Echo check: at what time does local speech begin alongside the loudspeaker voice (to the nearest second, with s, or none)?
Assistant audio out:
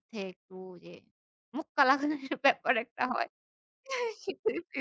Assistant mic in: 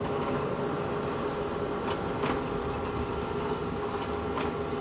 none